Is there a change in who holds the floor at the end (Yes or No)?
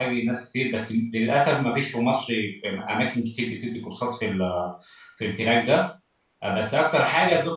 No